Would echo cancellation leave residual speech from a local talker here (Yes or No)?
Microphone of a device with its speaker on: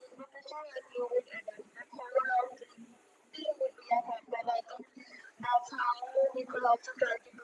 No